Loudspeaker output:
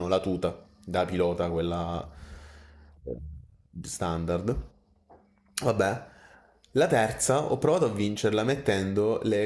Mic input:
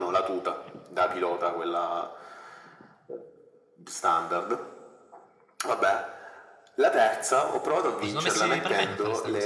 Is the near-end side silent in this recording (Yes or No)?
No